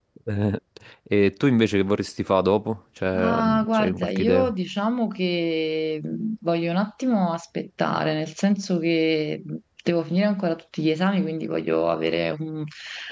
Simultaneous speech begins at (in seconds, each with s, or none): 3.1 s